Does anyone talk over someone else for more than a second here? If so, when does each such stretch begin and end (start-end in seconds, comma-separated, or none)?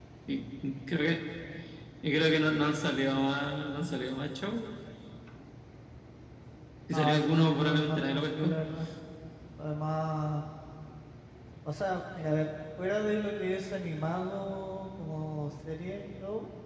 6.9-8.5